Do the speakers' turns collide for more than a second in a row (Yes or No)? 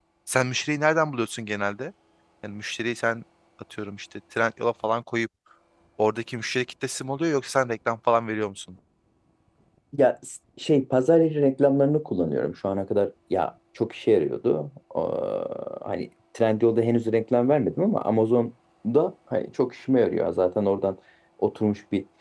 No